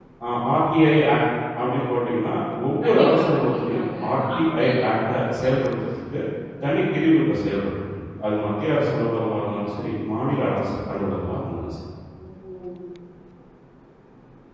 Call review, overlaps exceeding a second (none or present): present